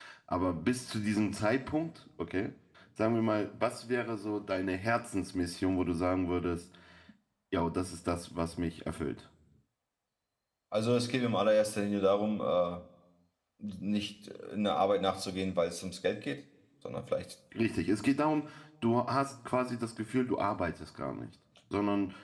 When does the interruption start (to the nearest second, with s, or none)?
none